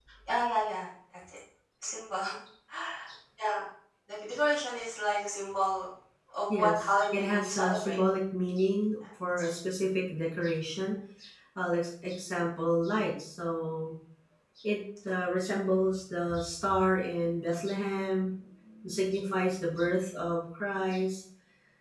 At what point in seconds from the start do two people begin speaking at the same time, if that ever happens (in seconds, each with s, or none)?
6.5 s